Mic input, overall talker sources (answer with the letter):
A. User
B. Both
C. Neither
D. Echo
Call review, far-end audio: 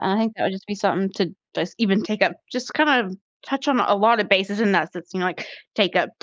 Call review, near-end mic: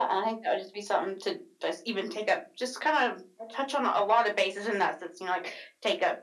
B